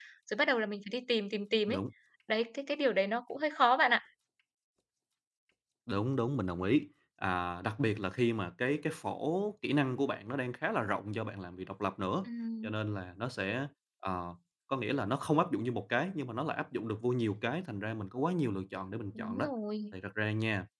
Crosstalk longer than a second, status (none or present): none